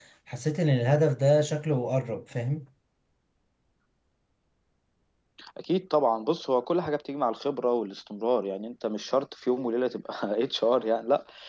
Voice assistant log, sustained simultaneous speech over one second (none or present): none